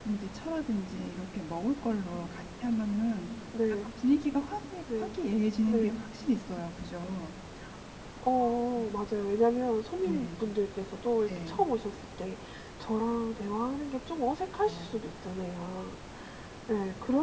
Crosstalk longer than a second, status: none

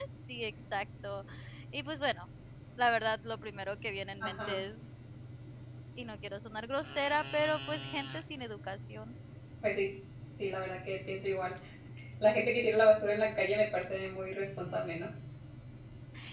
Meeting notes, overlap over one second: none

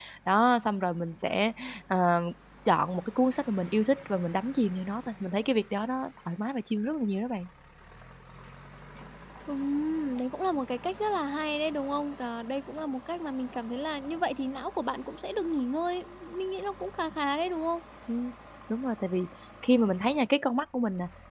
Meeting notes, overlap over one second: none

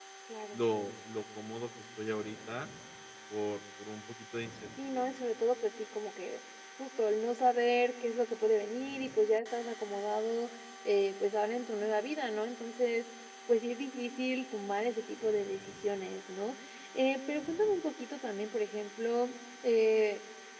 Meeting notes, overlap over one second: none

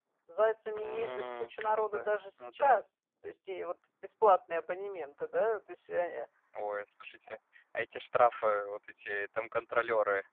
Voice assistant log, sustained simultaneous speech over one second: present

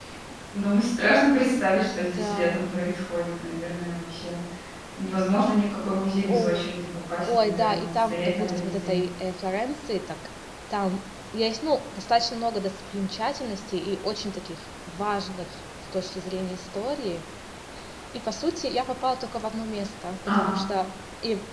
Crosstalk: present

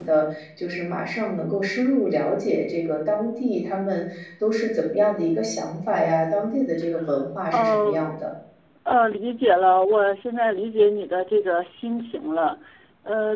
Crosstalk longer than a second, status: none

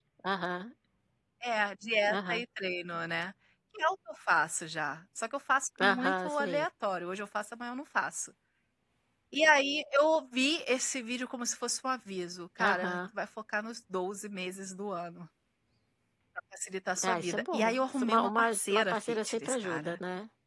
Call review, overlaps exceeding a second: present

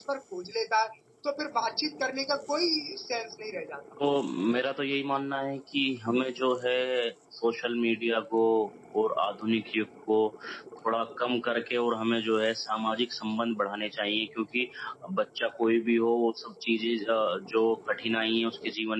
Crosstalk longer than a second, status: none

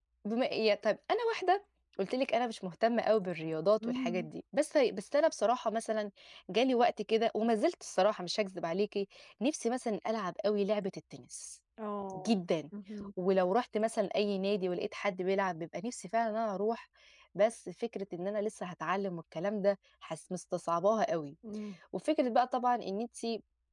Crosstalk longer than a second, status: none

